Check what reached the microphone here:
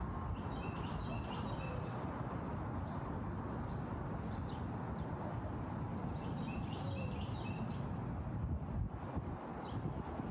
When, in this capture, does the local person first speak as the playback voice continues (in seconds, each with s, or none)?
none